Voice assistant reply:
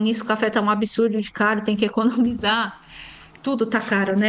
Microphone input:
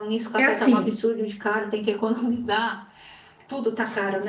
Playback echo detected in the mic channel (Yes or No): Yes